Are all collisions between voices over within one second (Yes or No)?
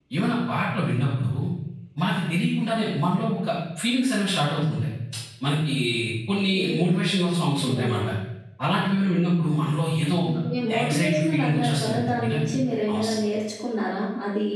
No